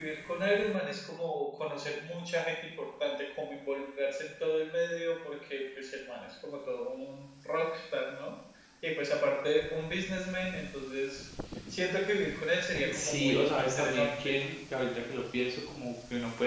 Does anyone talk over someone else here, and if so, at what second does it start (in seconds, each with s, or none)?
12.8 s